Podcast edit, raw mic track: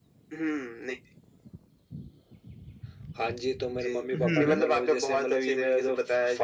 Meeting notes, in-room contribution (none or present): present